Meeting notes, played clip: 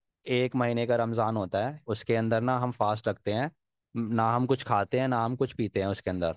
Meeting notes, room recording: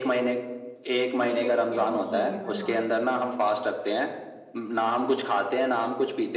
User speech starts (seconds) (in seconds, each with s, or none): 1.2 s